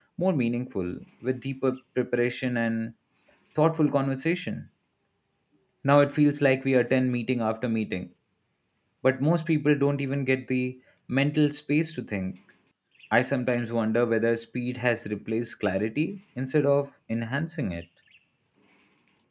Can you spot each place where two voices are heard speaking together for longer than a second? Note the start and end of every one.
none

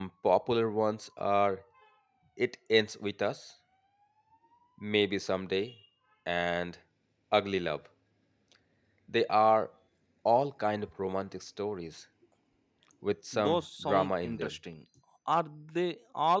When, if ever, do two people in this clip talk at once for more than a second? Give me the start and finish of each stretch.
13.3-14.5

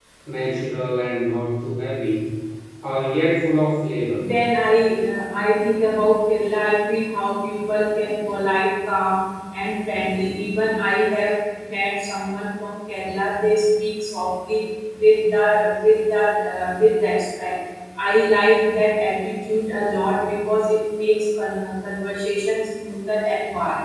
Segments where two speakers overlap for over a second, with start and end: none

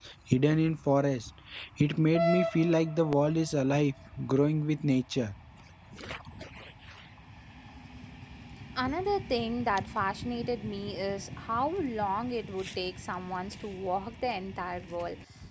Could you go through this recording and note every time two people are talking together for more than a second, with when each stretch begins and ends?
none

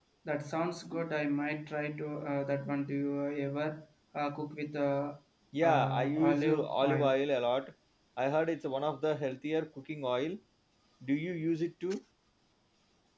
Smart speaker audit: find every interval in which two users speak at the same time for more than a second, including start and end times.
5.6-7.2

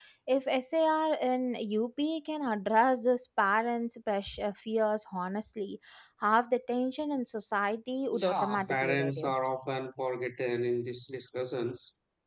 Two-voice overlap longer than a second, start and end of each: 8.1-9.4

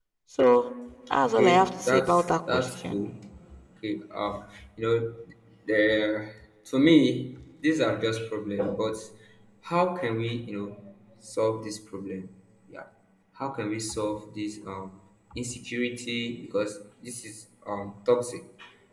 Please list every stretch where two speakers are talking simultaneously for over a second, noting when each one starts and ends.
1.2-3.1

